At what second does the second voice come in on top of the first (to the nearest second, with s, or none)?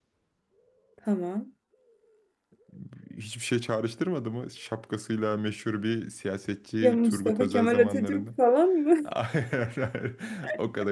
7 s